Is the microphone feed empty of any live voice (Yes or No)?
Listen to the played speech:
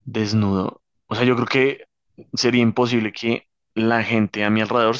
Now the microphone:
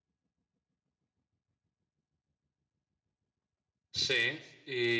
No